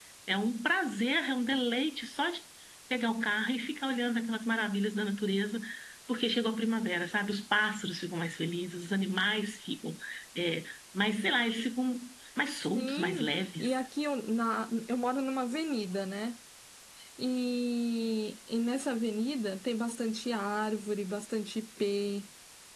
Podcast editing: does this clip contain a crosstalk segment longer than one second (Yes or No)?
No